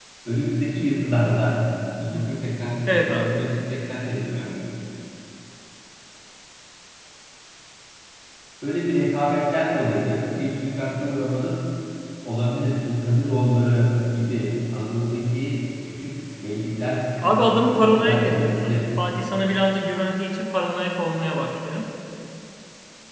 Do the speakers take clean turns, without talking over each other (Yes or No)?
No